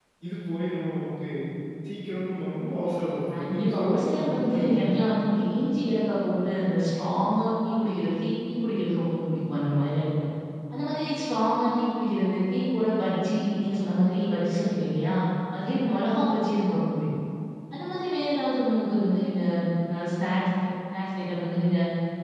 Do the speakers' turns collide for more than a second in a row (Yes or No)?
Yes